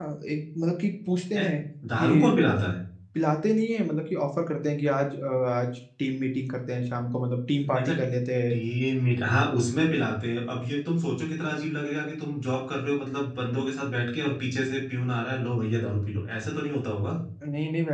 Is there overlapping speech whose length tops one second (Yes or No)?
No